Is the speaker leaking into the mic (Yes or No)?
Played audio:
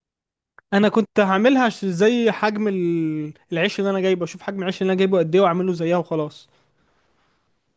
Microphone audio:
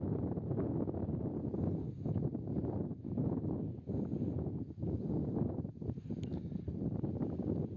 No